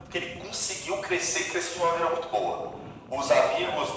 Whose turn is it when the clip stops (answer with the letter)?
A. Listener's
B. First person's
B